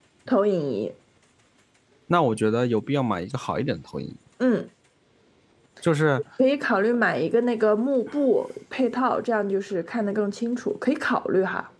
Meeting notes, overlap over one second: none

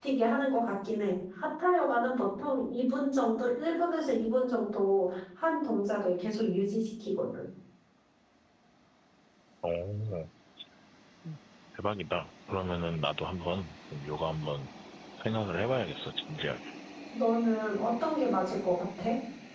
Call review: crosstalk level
none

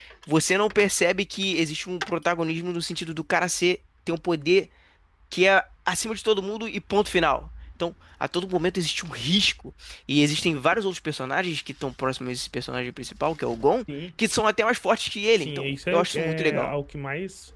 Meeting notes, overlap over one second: present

